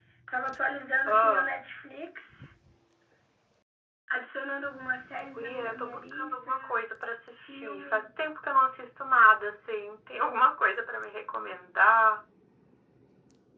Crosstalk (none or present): present